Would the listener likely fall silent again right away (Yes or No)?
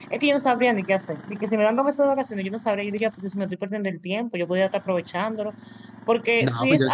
No